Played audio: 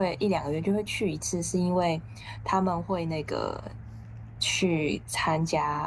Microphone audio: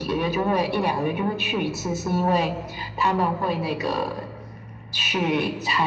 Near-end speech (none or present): none